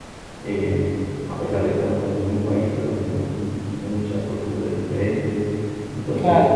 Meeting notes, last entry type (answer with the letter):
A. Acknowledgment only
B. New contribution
A